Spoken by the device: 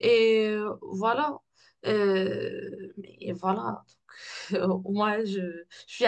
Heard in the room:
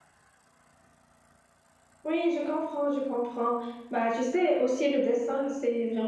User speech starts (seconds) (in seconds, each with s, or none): 2.0 s